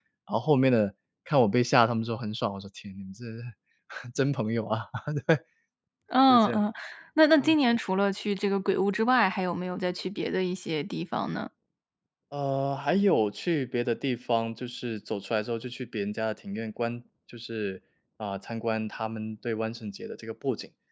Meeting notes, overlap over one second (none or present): none